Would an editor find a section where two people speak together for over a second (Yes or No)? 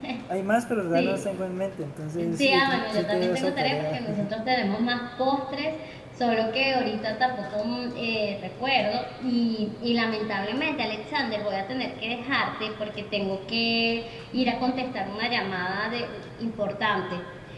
Yes